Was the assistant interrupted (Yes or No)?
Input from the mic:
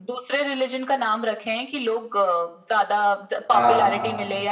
Yes